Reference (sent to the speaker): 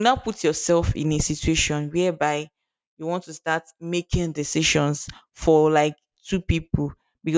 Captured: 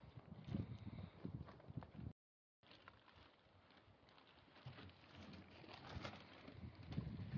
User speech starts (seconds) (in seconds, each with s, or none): none